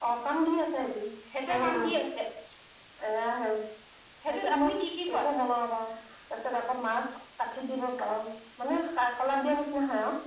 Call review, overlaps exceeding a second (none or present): none